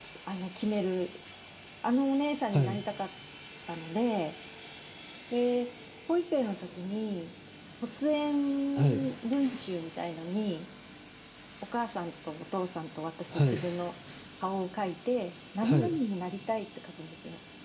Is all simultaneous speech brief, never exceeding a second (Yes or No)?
Yes